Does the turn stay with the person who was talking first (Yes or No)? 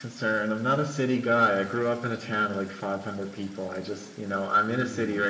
Yes